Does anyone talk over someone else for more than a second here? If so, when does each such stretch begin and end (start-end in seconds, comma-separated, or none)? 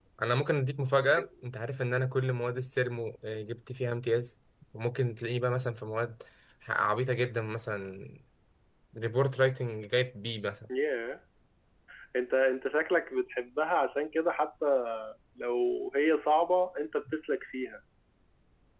none